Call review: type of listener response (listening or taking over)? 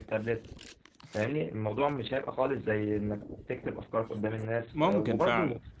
listening